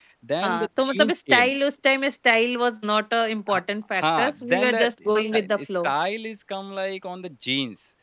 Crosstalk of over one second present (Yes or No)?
Yes